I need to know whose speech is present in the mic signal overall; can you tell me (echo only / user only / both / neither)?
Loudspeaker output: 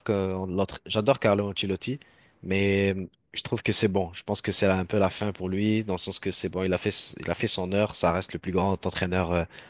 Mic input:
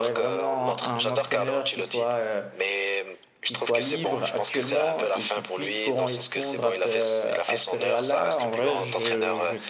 both